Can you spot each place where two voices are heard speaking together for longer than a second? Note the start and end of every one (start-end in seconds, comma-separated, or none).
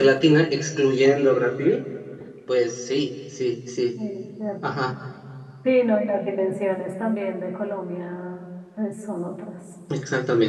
none